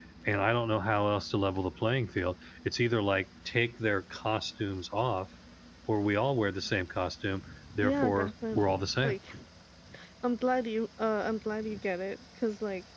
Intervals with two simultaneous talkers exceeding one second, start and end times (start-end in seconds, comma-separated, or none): 7.8-9.2